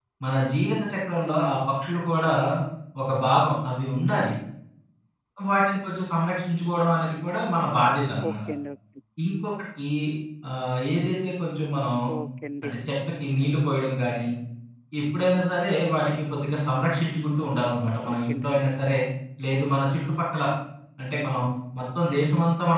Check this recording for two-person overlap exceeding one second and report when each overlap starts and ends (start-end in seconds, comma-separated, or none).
none